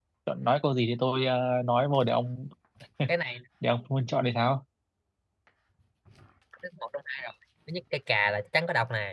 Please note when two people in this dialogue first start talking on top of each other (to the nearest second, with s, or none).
none